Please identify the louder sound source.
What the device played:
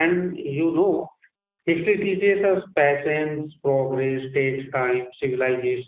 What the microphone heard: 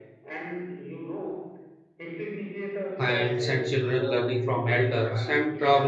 user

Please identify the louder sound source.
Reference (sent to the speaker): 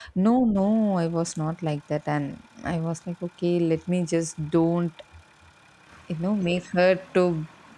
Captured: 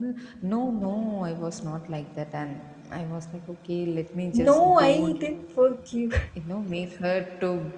user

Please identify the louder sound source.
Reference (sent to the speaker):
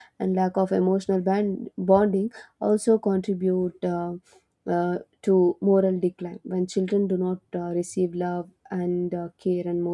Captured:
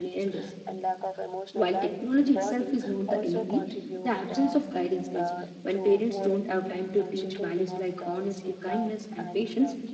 user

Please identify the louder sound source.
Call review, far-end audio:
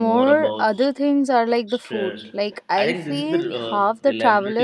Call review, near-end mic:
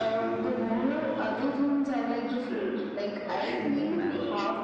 echo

